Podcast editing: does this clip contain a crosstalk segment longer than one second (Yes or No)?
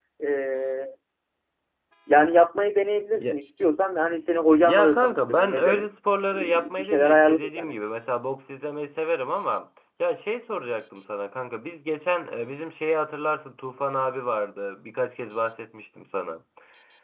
Yes